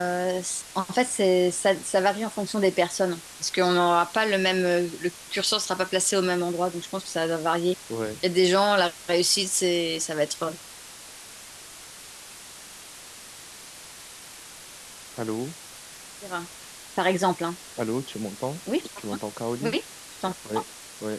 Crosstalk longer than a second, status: none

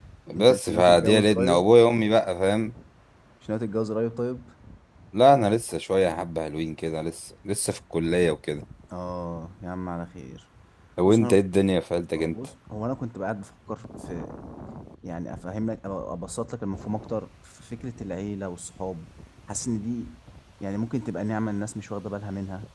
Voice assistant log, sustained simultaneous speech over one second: present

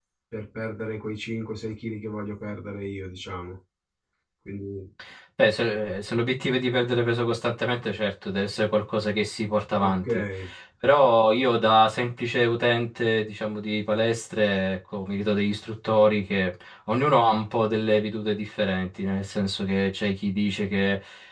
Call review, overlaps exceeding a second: none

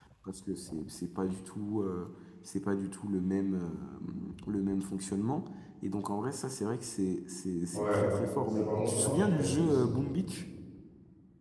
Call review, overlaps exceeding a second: present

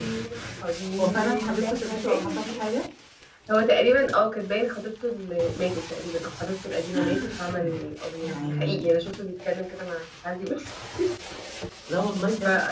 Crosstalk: present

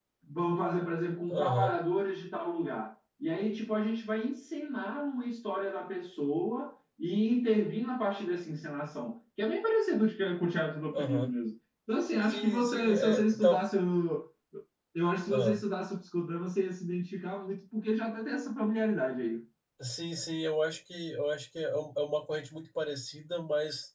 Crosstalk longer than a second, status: present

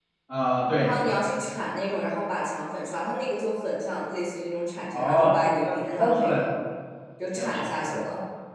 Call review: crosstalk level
present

